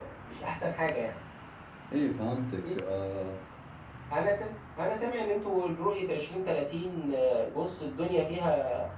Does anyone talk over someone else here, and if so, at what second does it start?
none

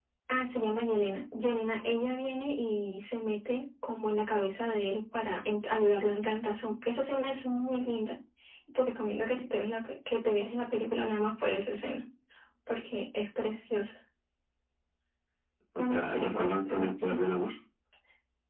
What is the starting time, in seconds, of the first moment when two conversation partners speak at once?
15.8 s

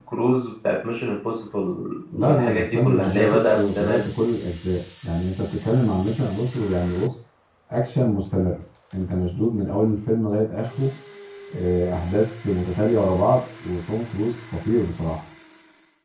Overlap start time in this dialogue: 2.1 s

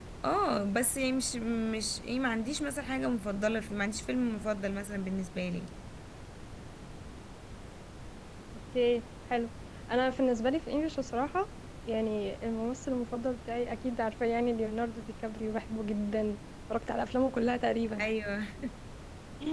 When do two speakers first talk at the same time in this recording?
none

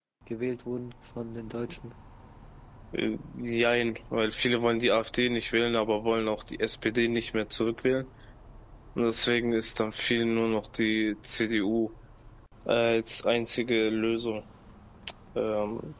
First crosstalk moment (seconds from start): none

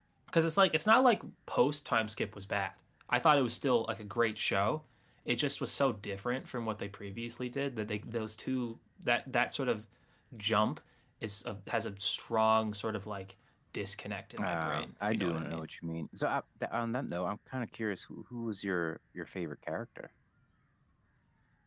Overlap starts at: 14.4 s

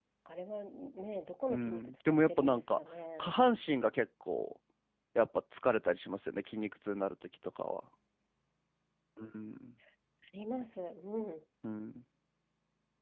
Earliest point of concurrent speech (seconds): 1.5 s

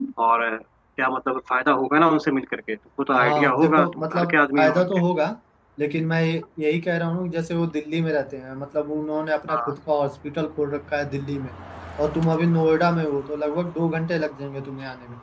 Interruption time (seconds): 3.2 s

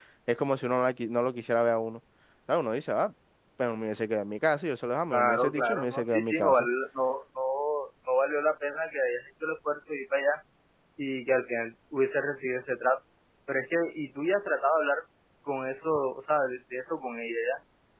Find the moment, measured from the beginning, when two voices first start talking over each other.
5.1 s

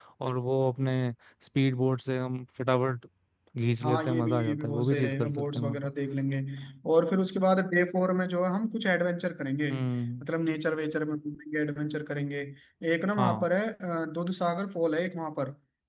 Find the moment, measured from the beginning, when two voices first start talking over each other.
3.8 s

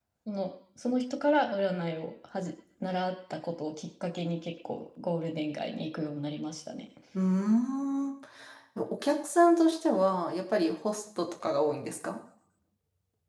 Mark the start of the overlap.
none

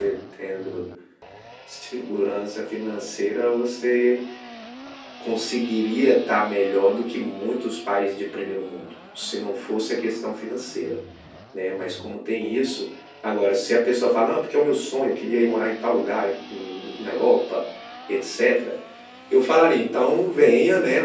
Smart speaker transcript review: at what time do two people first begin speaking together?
none

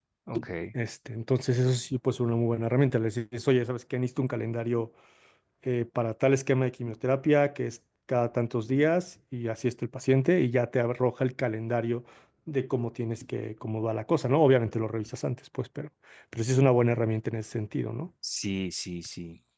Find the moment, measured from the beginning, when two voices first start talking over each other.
none

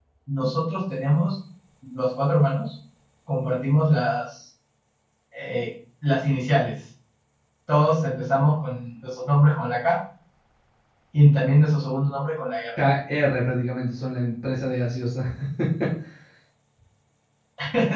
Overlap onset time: none

